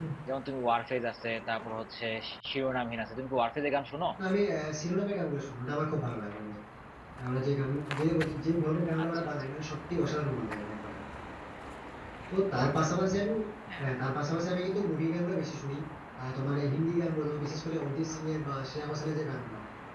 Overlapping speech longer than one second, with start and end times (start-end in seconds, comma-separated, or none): none